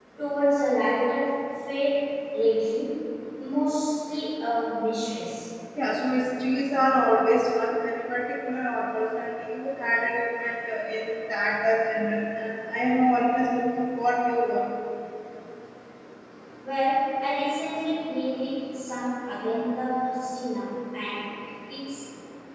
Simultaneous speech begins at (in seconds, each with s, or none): none